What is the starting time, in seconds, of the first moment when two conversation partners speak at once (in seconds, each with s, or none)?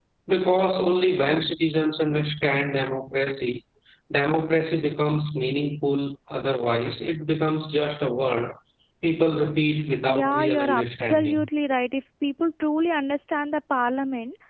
10.1 s